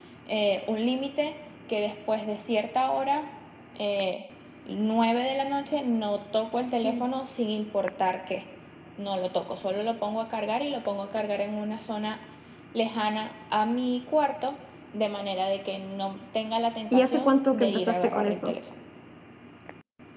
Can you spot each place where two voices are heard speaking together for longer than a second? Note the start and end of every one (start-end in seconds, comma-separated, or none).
16.9-18.5